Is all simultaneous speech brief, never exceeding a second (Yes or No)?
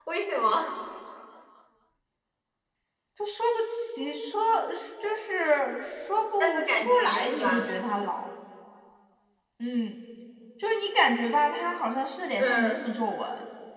No